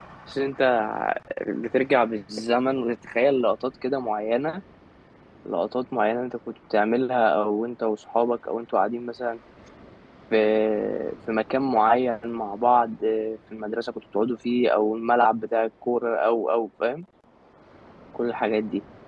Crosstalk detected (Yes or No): No